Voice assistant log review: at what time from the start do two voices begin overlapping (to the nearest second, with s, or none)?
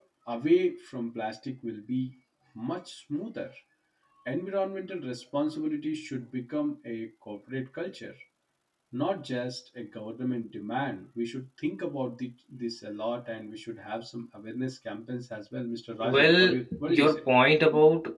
16 s